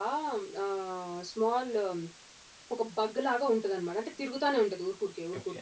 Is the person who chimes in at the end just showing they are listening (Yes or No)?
No